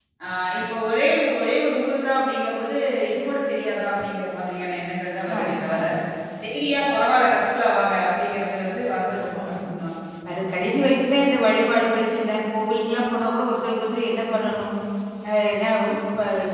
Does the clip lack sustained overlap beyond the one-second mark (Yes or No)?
Yes